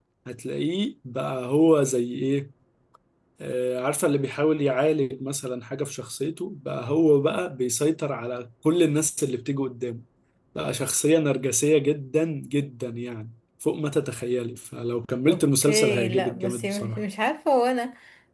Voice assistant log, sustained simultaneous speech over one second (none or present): present